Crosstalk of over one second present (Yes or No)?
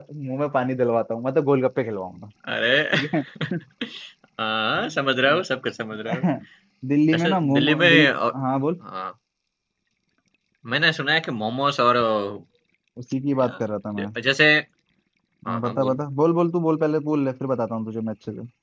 Yes